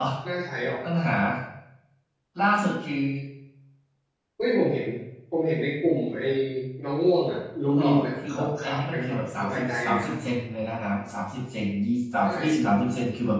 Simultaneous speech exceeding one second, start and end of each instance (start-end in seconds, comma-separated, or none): 7.7-10.1